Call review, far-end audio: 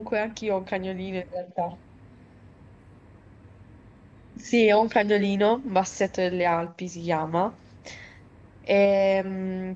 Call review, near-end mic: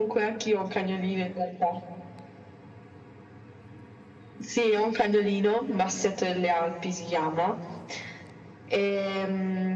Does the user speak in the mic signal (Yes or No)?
No